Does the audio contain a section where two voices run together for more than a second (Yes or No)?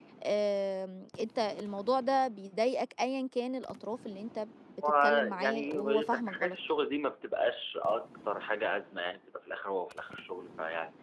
Yes